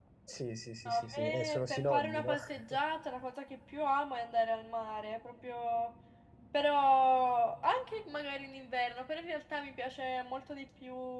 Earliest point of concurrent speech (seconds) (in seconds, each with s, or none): 0.8 s